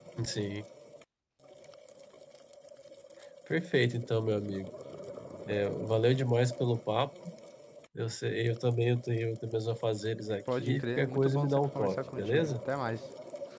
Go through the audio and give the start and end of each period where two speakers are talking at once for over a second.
10.6-12.6

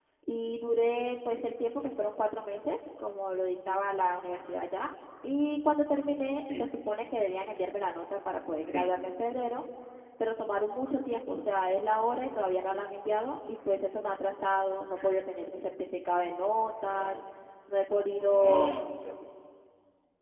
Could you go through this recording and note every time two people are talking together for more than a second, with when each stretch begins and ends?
none

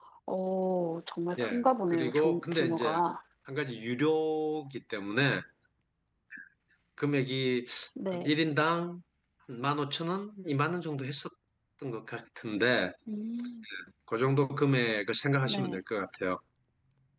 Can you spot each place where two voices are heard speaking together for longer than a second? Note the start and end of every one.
1.4-3.0

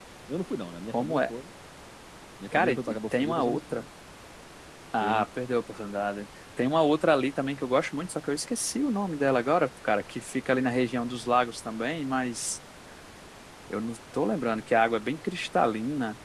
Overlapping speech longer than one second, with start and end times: 2.5-3.8

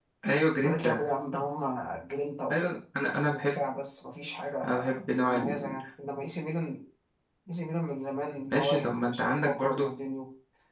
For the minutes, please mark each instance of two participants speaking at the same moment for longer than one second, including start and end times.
8.5-9.9

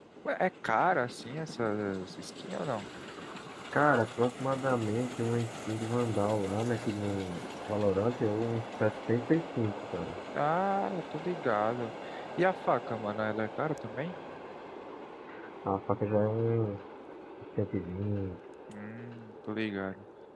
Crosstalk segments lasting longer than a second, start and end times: none

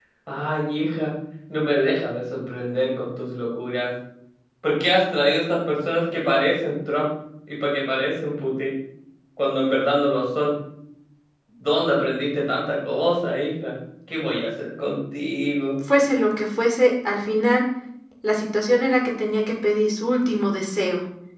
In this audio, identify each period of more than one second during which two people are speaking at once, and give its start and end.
none

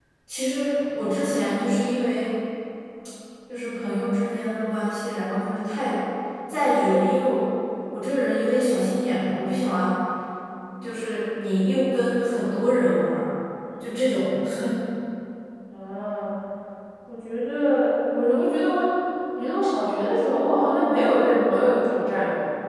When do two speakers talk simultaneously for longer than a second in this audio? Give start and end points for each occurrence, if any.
none

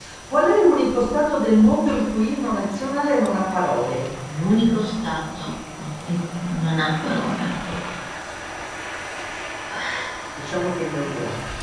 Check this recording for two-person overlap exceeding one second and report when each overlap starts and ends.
none

